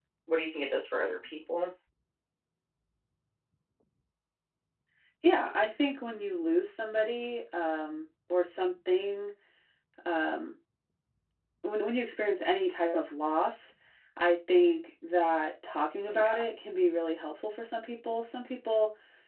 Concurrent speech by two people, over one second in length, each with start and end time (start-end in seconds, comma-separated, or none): none